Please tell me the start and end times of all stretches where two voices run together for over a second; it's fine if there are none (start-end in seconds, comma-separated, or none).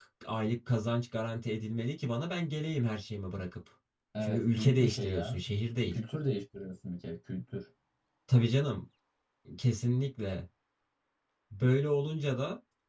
4.2-5.4